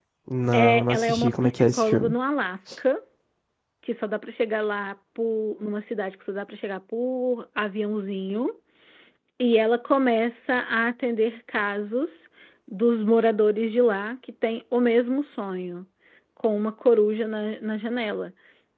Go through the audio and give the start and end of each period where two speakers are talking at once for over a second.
0.5-2.1

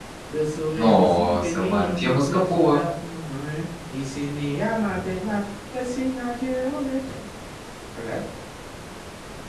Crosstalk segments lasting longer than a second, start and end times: 0.8-2.8

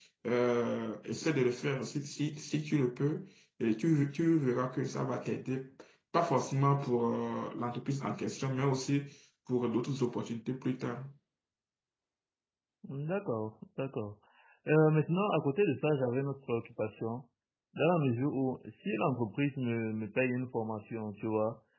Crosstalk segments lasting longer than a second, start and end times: none

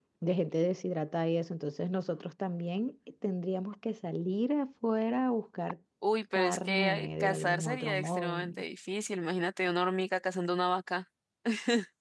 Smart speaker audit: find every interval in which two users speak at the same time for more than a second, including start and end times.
6.3-8.4

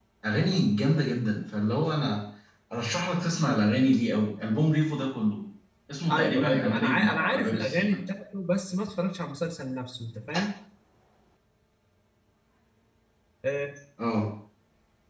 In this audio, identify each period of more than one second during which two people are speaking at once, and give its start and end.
6.1-8.0

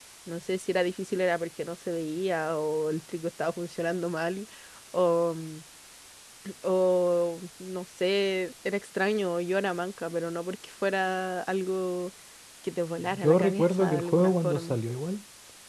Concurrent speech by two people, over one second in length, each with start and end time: 13.2-14.8

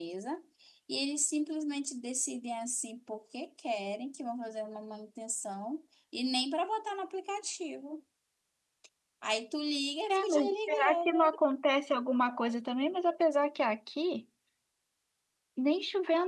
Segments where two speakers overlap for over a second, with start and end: 10.1-11.3

